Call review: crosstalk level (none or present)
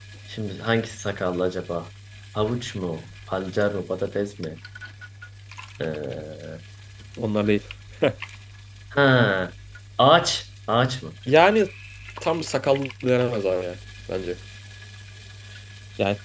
none